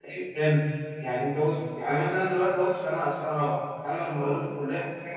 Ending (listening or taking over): listening